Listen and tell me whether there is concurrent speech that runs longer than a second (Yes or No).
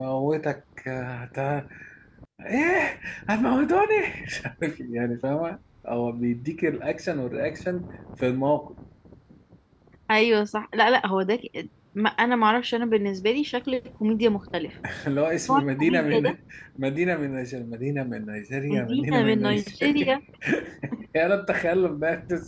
Yes